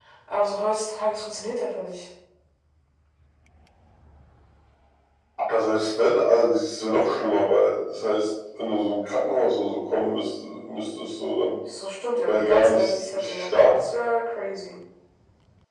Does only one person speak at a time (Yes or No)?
No